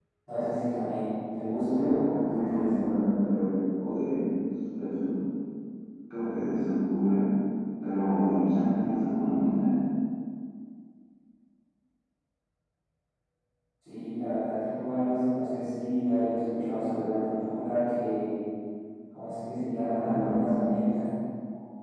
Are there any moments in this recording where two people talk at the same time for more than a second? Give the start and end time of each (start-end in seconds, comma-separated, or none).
1.6-2.8